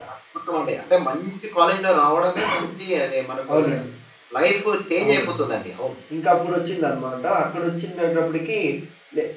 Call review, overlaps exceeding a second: none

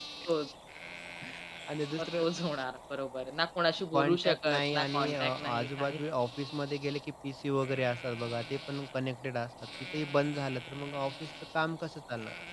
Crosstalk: present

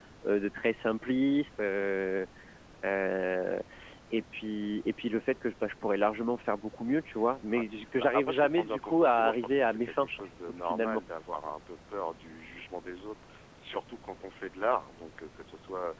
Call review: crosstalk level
present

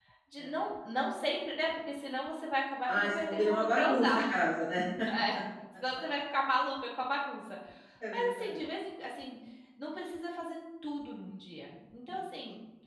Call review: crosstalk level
present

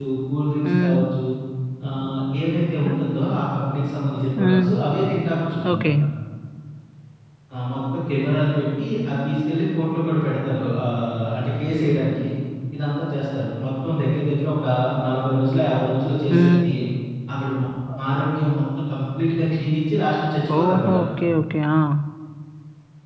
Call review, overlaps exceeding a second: none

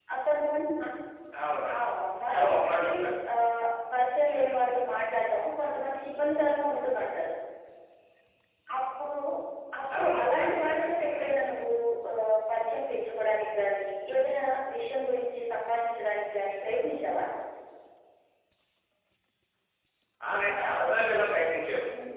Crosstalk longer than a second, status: present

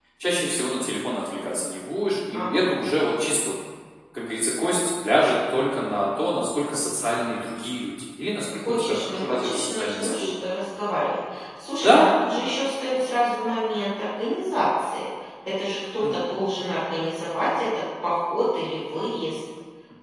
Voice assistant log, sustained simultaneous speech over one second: present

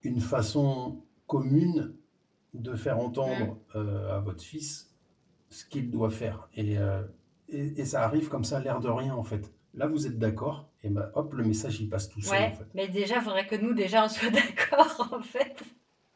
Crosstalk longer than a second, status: none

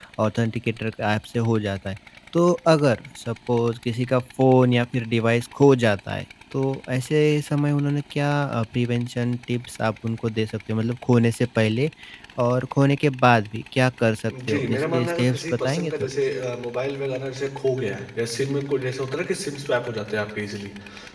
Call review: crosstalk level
present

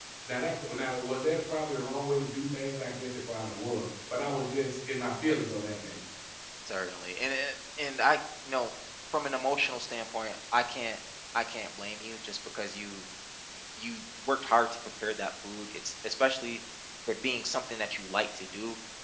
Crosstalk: none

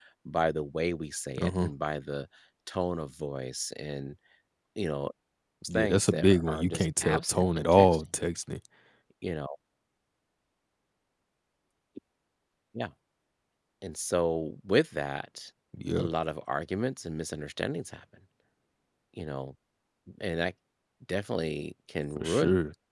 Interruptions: present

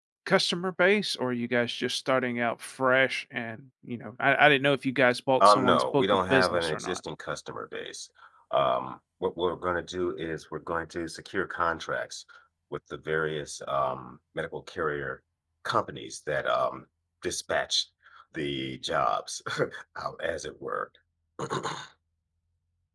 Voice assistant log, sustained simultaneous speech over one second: present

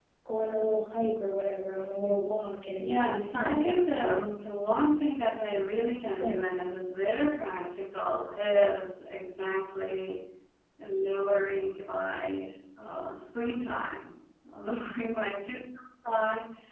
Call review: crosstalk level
present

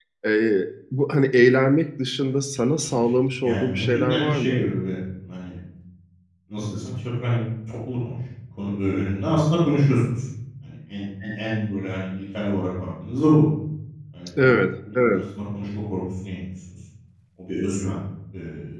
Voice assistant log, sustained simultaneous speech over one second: present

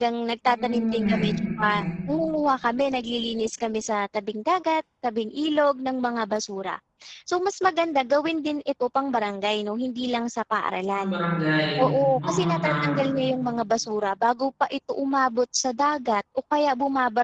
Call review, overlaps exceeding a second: present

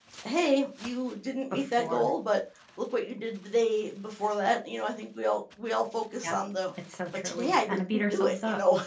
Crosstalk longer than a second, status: present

